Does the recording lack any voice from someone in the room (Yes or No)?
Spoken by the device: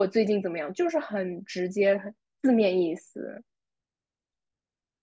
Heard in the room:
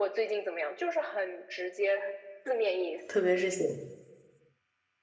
No